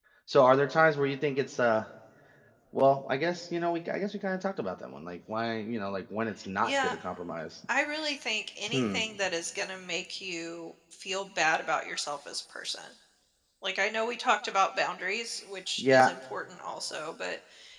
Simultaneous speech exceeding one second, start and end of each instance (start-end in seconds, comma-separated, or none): none